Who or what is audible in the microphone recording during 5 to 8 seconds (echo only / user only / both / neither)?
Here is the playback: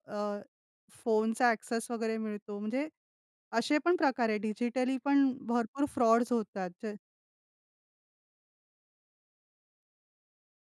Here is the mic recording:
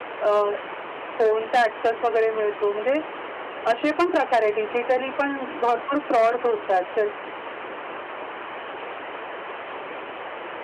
echo only